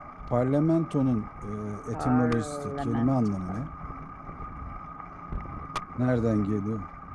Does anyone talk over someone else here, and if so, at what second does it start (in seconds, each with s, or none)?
1.9 s